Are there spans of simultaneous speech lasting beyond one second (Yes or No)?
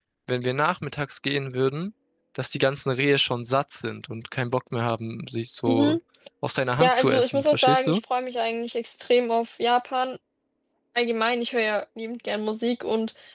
Yes